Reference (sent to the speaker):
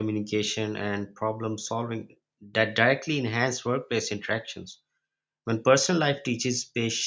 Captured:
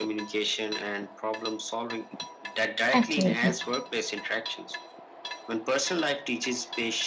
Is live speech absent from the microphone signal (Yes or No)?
No